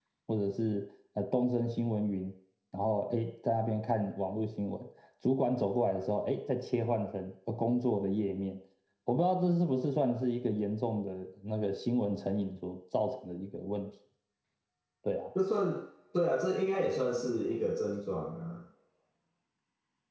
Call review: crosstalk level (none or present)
none